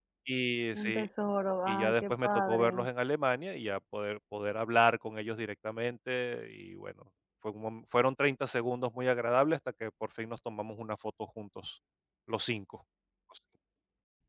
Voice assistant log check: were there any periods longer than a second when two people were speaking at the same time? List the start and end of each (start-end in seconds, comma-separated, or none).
1.7-2.9